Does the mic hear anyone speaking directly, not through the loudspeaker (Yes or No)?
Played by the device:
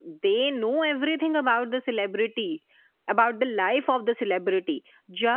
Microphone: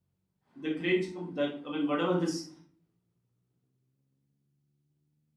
Yes